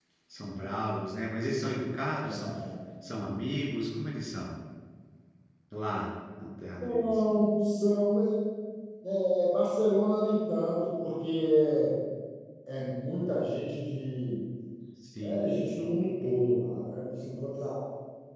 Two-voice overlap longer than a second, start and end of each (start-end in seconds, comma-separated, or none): none